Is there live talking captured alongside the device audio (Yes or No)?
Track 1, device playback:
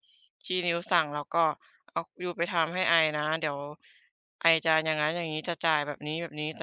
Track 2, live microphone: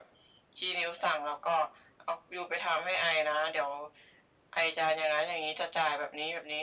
No